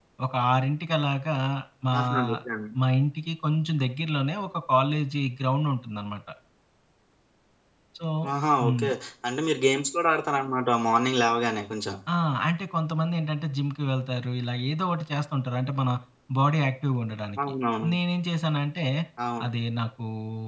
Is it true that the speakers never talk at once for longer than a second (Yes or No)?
Yes